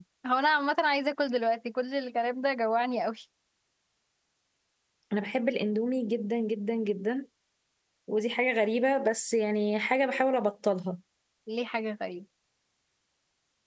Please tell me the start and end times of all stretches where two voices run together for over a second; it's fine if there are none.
none

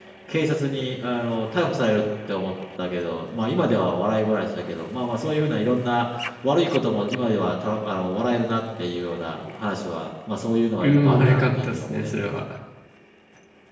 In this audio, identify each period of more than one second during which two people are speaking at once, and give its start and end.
10.8-12.2

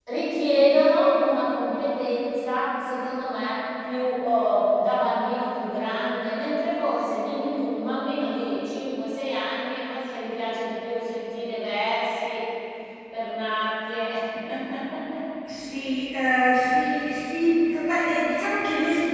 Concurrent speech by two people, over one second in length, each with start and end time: none

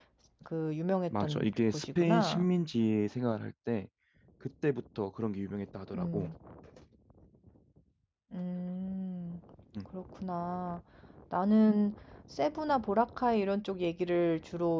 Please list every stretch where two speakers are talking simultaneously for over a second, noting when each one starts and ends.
1.2-2.5

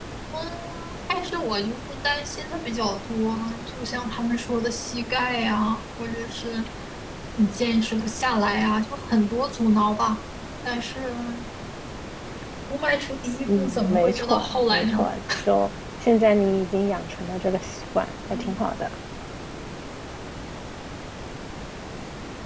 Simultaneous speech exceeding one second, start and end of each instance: 13.4-15.1

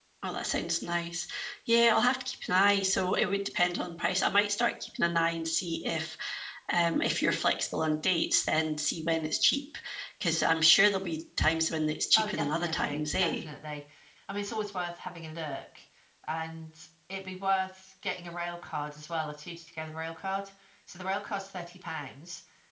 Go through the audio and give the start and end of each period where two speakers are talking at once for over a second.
12.2-13.4

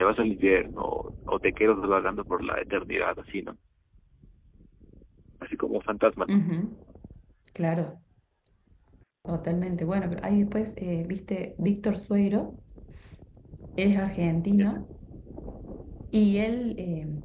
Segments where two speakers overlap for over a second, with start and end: none

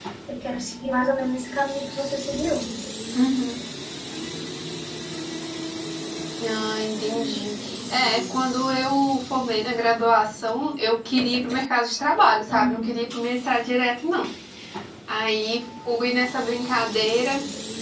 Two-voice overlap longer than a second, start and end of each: none

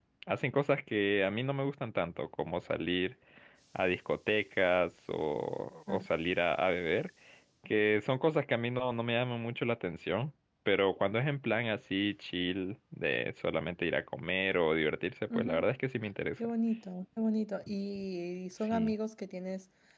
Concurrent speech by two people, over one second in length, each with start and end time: none

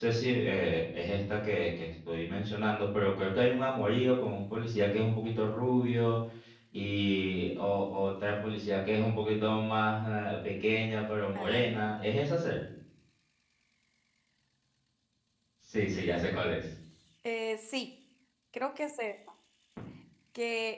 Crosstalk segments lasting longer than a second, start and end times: none

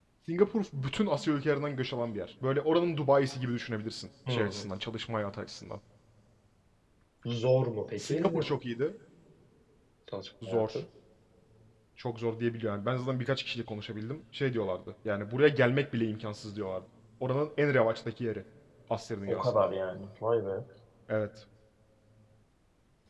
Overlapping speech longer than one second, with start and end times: none

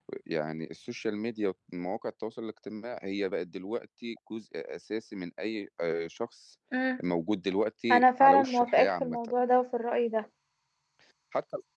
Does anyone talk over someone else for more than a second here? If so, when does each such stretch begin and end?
7.9-9.2

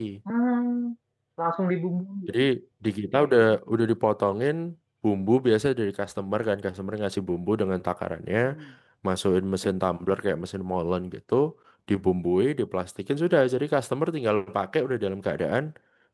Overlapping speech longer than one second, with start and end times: none

